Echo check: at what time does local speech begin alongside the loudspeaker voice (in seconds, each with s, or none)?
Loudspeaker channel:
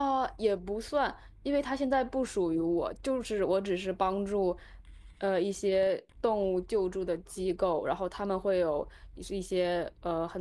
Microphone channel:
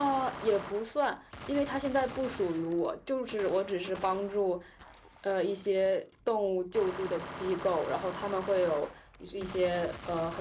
none